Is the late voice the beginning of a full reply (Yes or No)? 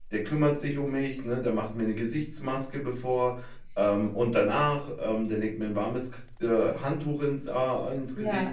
No